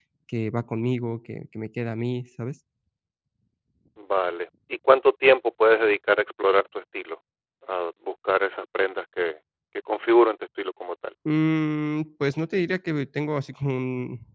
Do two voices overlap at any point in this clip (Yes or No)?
No